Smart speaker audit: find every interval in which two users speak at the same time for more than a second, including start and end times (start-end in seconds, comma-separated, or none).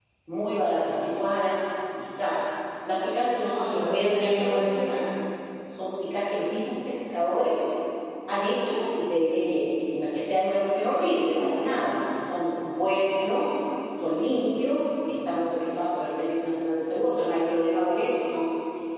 3.5-4.7